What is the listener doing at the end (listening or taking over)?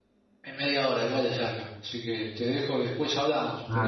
taking over